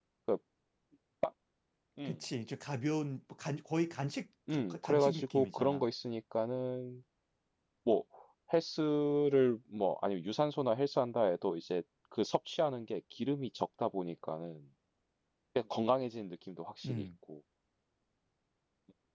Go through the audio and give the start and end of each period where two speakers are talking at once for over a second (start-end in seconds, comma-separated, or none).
4.5-5.8